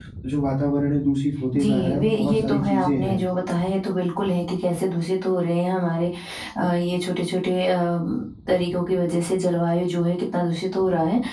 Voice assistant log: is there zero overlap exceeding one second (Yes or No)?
No